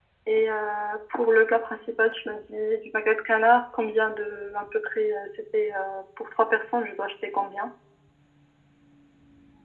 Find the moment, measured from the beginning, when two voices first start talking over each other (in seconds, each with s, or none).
none